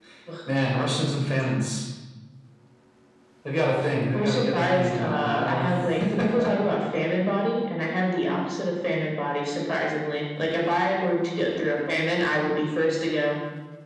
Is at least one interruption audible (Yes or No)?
Yes